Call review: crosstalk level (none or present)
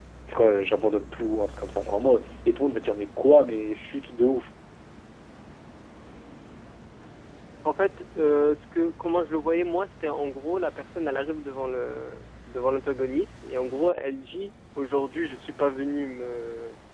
none